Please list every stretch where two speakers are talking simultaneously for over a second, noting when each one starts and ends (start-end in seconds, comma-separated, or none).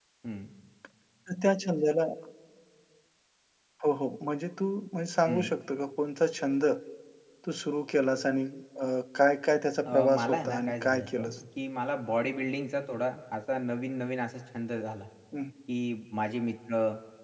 9.8-11.3